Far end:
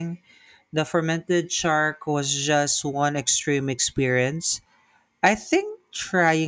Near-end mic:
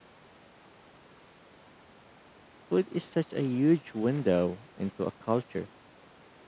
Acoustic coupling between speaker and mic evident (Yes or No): No